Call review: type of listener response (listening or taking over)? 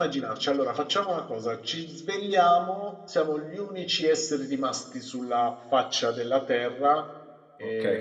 taking over